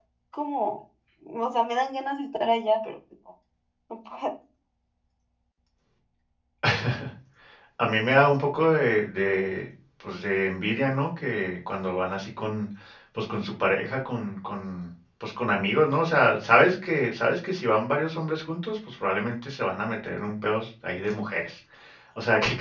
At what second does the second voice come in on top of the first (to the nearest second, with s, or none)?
none